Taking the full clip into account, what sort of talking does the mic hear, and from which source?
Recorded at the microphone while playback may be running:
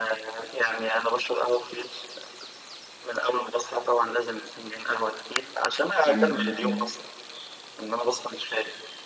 both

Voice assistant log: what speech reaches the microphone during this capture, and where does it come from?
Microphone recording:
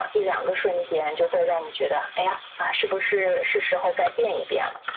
echo only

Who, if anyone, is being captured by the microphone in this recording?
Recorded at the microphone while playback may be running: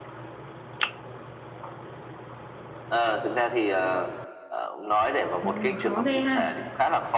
both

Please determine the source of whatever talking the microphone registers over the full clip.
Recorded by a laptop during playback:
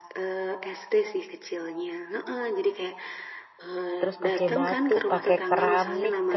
both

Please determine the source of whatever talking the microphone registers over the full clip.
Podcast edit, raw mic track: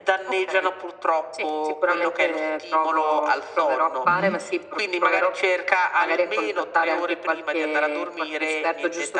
both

